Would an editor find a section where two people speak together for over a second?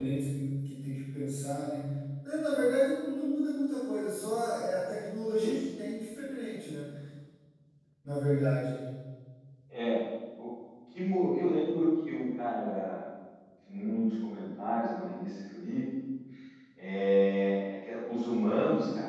No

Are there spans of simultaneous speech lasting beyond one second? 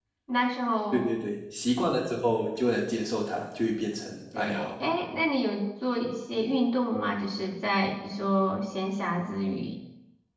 No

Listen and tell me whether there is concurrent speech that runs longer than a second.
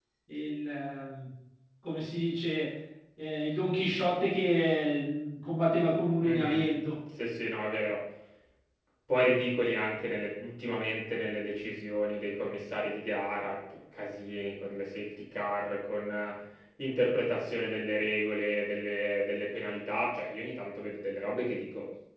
No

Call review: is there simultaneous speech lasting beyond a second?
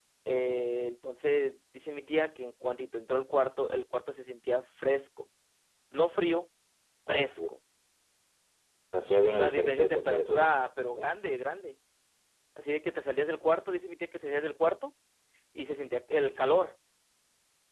Yes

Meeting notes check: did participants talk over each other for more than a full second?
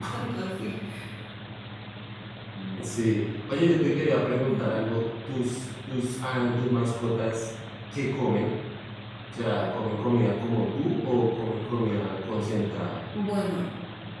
No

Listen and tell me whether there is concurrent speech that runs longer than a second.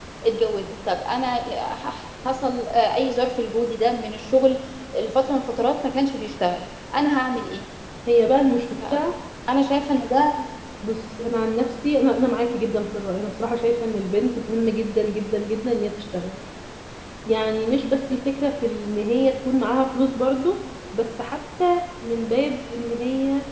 No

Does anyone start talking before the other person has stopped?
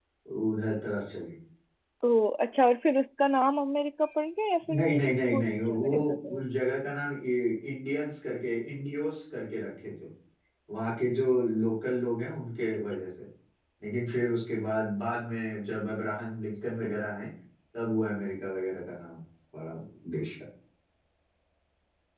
Yes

